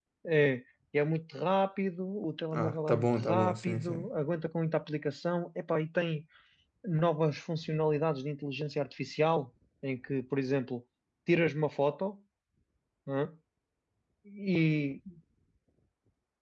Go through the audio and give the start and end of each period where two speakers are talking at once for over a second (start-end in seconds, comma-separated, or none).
2.5-4.1